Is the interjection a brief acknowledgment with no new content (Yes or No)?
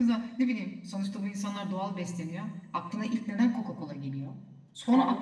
Yes